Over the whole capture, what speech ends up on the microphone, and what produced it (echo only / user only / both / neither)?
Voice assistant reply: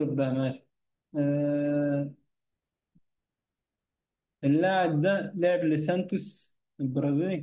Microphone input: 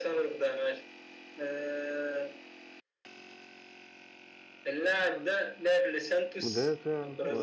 both